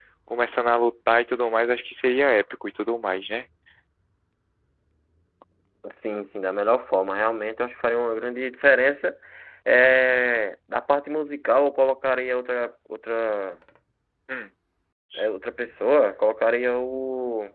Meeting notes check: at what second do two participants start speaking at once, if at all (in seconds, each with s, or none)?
none